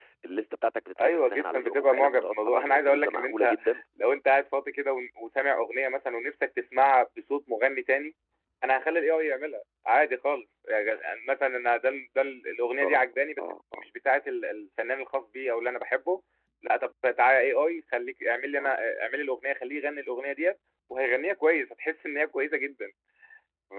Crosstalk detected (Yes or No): Yes